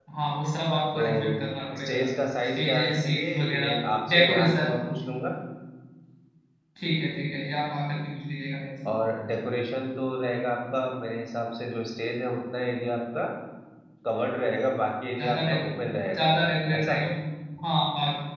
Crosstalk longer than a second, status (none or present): present